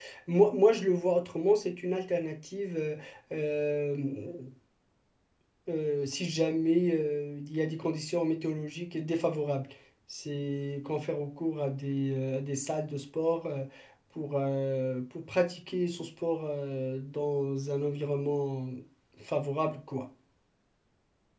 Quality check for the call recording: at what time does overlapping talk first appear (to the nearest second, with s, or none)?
none